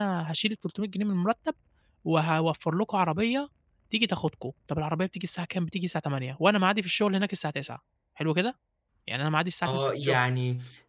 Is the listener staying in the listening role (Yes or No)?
No